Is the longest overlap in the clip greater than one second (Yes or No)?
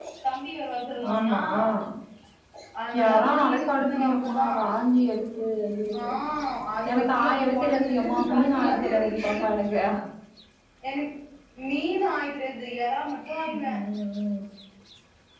Yes